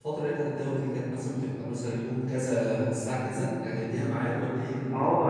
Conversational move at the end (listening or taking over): taking over